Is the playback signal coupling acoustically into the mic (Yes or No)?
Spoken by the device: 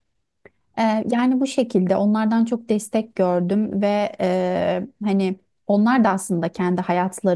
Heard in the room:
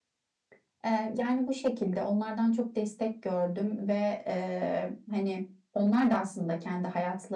Yes